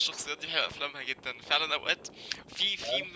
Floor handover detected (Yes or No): No